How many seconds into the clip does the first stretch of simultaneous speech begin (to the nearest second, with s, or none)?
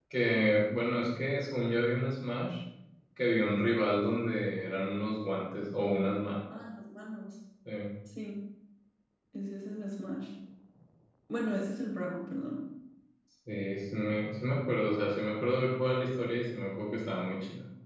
none